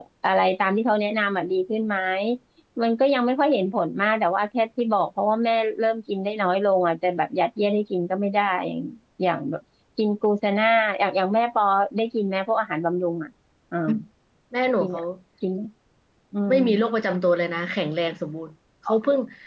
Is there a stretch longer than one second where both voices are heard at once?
No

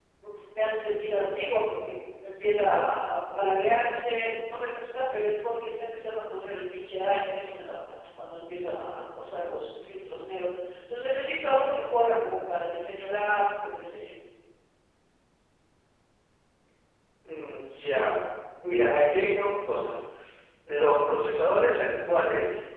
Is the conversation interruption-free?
Yes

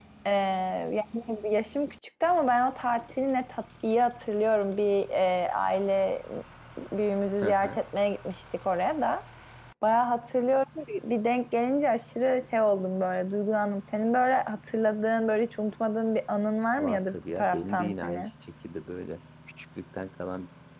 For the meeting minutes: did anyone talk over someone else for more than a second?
Yes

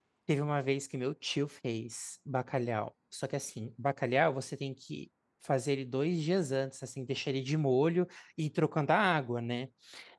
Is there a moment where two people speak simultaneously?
No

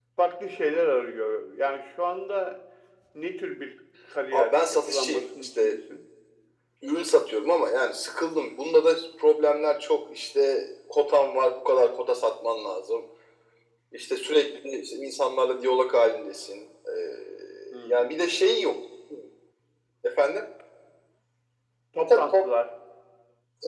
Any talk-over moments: Yes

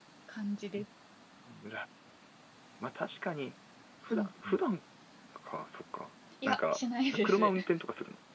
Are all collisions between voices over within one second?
Yes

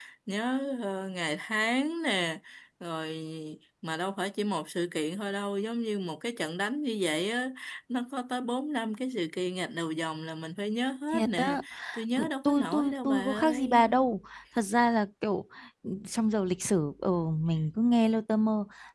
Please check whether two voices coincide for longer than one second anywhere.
Yes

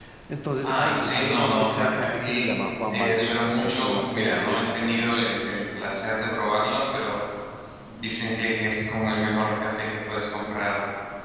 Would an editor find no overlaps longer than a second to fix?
No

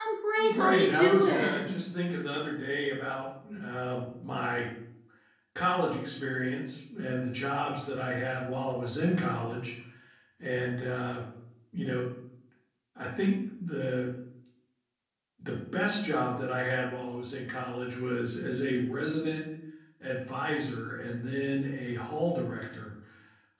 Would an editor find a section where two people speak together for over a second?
Yes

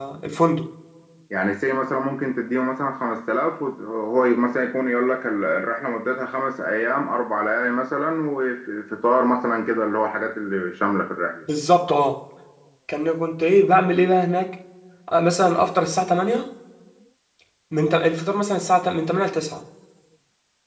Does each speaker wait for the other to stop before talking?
Yes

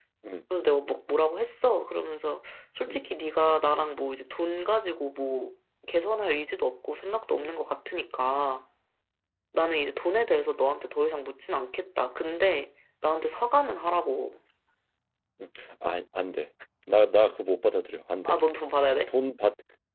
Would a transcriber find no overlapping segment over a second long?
Yes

